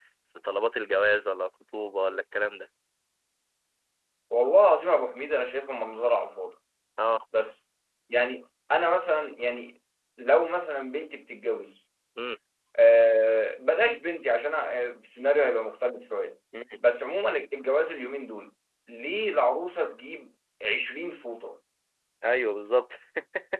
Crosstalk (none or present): none